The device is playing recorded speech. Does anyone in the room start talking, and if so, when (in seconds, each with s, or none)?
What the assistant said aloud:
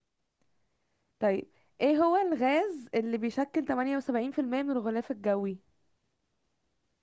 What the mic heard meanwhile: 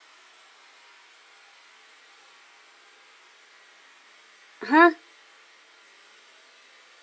4.6 s